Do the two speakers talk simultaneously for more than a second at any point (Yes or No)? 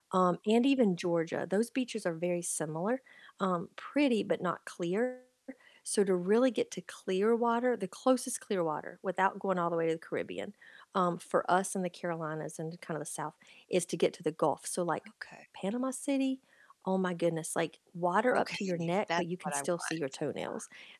Yes